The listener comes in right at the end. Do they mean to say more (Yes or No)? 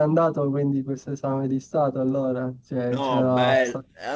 Yes